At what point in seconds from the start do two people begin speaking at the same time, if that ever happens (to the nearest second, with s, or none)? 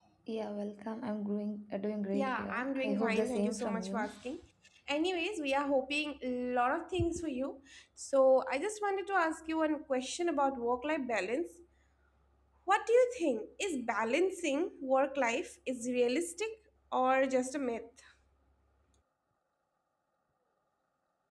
2 s